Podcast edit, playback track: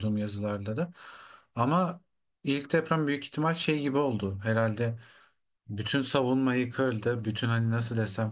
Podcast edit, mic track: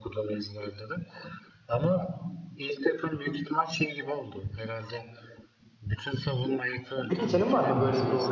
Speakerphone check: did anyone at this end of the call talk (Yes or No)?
Yes